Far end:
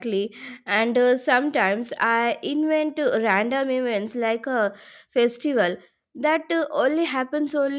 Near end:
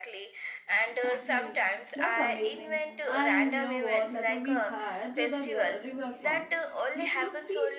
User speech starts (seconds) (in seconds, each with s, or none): 0.9 s